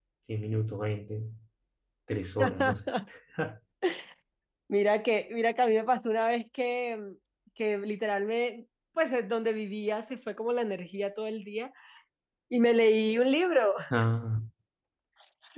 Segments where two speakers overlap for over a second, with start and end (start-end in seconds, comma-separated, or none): none